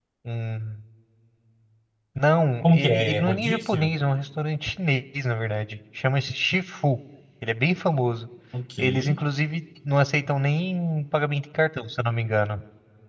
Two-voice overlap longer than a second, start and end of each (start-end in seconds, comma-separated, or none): 2.6-3.9